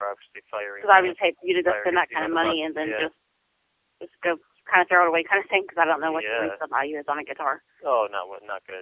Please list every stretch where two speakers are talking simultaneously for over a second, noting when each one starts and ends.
1.7-3.1

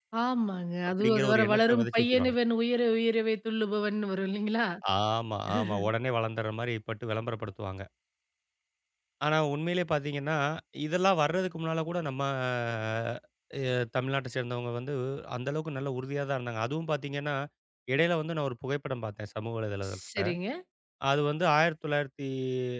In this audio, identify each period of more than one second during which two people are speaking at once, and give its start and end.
1.0-2.4

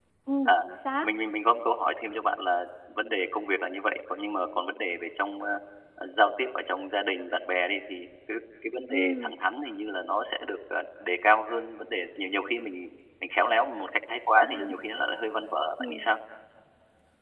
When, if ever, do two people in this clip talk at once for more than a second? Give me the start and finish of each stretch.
none

